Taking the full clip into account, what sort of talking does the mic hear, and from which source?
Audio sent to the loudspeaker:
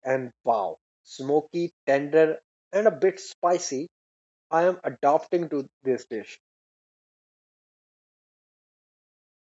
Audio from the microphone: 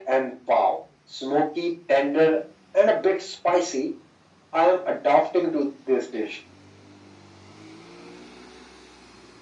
echo only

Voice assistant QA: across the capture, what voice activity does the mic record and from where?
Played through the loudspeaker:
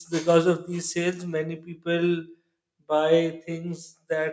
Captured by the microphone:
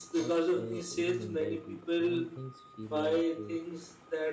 both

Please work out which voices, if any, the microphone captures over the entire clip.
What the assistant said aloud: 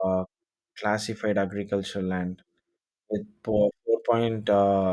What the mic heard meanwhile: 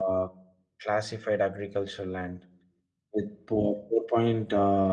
echo only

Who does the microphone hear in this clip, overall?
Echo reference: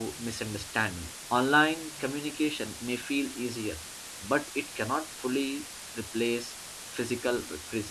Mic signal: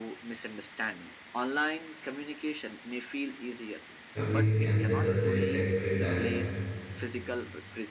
both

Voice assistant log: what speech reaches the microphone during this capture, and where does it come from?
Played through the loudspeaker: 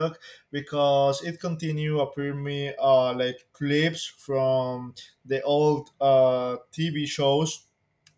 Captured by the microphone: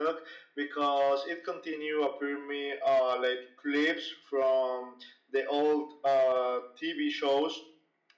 echo only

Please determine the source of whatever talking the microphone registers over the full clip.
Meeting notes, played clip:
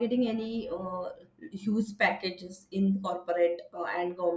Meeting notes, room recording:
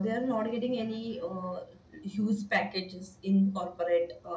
echo only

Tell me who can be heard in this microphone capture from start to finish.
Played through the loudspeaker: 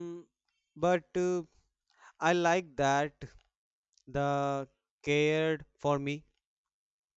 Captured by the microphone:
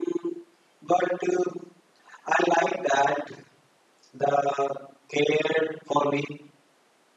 echo only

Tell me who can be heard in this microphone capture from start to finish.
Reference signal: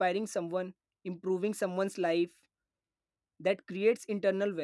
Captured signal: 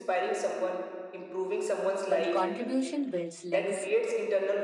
both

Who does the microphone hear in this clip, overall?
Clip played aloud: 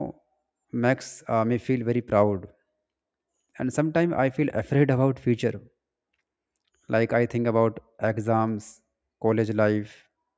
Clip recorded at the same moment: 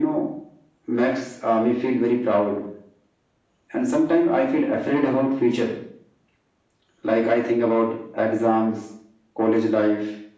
echo only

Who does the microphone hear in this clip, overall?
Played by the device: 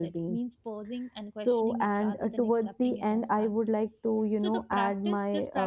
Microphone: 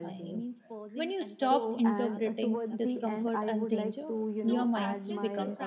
both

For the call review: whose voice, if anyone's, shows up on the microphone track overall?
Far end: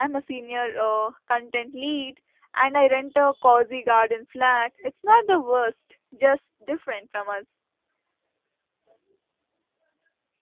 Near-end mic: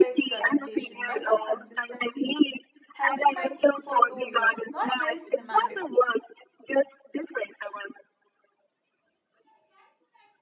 both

